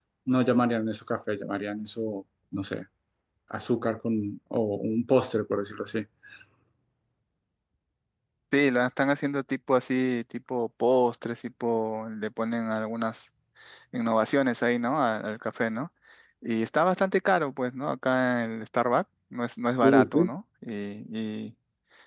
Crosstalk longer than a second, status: none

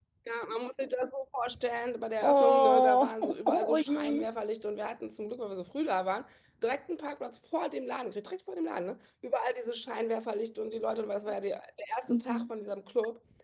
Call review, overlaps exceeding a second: present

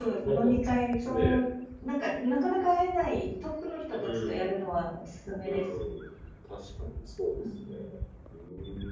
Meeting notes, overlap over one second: none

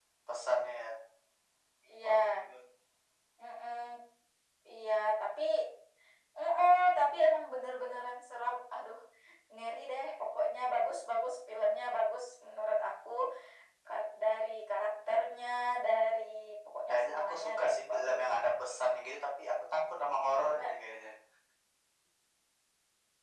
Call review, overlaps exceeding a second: present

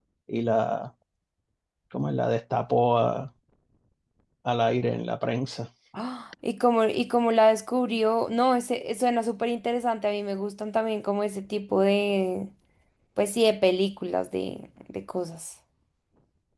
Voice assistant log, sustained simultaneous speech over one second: none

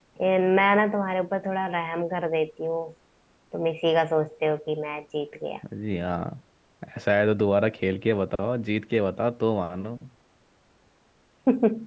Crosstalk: none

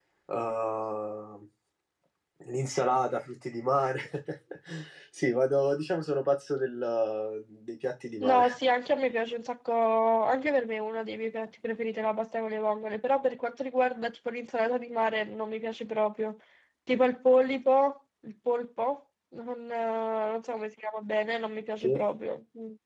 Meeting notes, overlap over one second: none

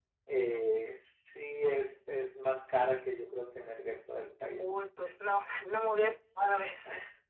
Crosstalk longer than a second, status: none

